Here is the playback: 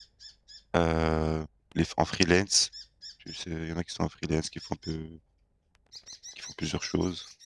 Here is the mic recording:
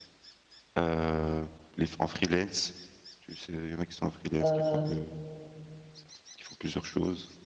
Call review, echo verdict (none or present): present